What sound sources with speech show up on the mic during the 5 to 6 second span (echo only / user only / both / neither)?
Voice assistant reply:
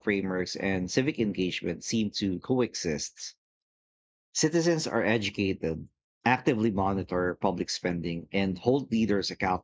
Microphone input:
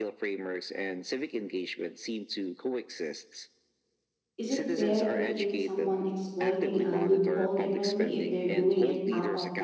both